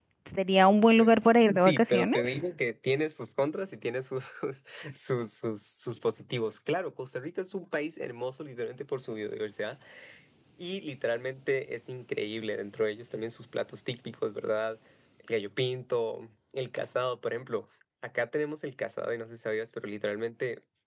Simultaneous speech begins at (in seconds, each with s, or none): 1.0 s